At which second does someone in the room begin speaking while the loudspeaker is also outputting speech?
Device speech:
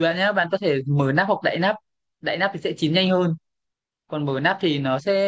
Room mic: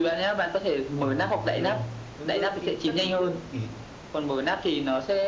1.0 s

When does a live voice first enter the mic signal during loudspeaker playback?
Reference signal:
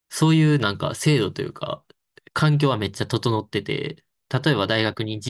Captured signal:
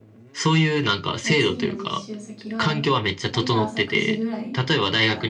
1.2 s

